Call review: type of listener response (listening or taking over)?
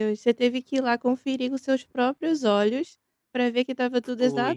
listening